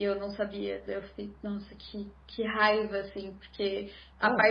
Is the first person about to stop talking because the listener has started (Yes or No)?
No